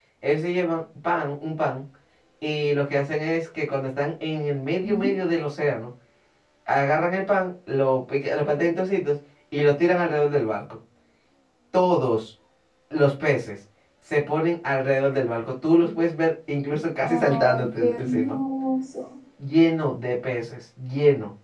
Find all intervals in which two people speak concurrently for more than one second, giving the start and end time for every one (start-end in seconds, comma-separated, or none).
17.0-18.4